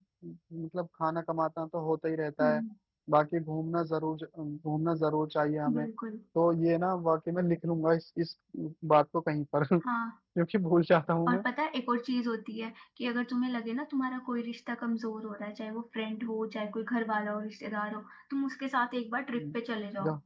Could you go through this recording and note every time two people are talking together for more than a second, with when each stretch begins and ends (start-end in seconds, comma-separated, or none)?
none